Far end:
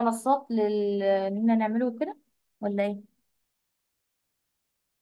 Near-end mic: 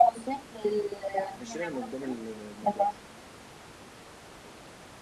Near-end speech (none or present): present